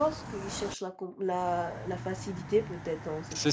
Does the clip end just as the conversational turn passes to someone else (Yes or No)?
Yes